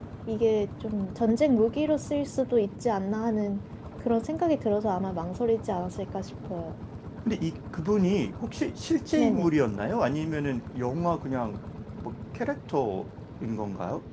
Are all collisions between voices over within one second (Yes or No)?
Yes